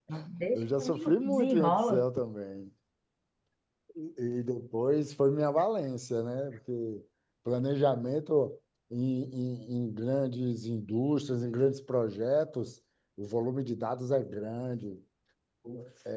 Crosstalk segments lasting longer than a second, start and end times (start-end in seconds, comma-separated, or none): 0.5-2.1